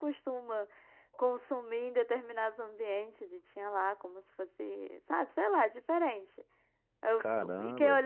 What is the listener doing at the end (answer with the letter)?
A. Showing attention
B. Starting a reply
A